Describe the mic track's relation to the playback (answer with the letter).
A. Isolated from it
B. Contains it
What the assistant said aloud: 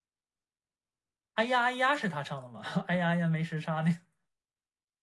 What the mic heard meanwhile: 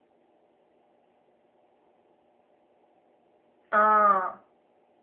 A